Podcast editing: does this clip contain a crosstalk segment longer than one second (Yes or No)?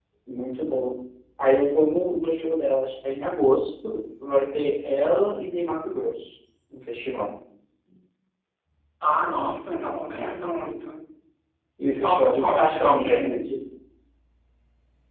Yes